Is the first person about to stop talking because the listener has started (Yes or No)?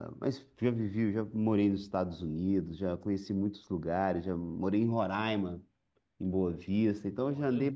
No